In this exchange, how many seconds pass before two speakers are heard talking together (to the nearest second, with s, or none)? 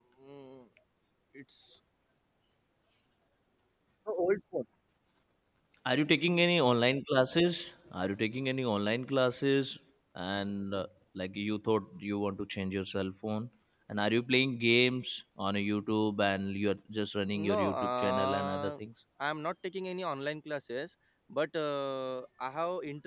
17 s